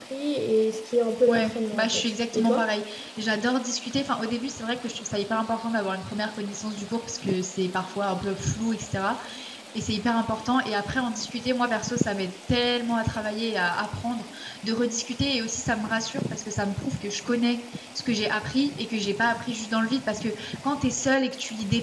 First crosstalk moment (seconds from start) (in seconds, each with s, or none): 1.3 s